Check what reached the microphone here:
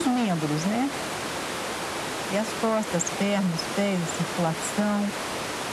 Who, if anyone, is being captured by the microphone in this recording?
echo only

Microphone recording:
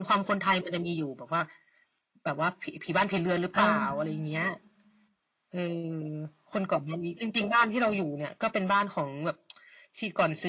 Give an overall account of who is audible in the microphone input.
both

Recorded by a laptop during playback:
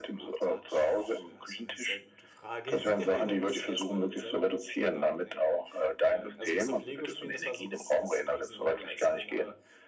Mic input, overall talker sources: both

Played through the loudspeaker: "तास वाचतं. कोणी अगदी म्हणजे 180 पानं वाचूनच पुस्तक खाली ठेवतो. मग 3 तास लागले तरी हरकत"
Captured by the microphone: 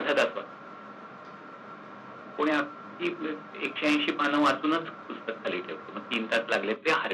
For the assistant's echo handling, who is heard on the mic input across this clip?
echo only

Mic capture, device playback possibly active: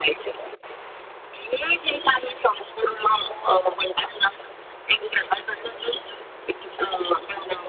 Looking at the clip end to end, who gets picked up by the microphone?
echo only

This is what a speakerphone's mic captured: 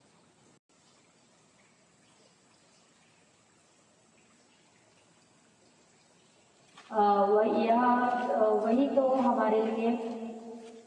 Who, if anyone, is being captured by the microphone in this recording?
user only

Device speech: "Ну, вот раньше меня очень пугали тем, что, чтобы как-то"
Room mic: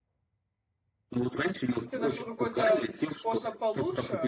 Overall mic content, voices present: both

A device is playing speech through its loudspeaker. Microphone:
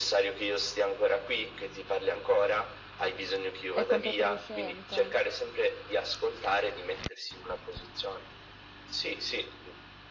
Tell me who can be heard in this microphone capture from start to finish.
both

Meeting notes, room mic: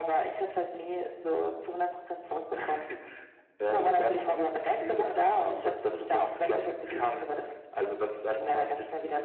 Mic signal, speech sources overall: echo only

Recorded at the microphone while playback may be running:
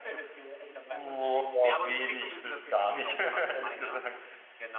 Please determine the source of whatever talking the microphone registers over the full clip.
both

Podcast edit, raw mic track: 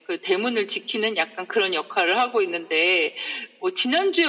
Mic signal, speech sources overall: echo only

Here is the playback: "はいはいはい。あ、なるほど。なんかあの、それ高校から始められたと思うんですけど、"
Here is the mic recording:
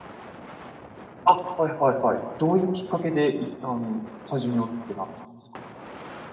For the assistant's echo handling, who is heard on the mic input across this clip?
user only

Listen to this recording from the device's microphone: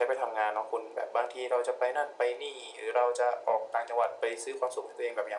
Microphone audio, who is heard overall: echo only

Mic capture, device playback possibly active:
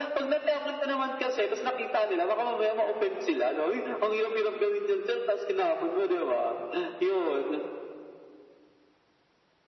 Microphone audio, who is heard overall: echo only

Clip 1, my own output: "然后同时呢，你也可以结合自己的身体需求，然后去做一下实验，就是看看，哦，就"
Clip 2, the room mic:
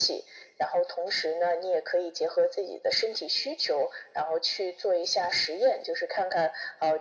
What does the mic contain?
echo only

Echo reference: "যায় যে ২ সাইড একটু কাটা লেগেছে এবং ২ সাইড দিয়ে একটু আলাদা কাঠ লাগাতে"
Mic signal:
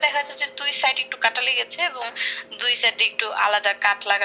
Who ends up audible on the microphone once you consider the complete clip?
echo only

